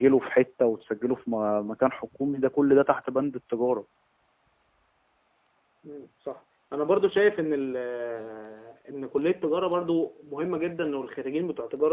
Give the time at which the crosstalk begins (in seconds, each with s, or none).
none